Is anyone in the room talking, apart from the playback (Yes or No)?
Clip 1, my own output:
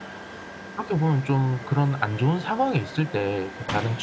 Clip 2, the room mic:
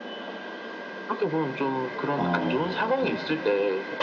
Yes